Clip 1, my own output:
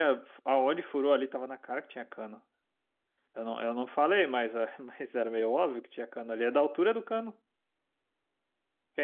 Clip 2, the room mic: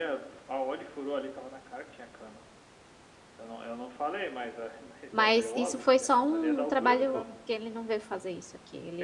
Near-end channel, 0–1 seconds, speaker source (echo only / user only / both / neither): echo only